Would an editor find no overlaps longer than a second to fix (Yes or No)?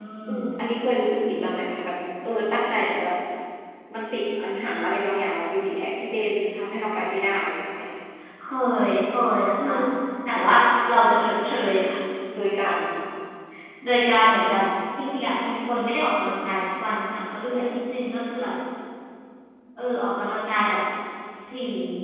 Yes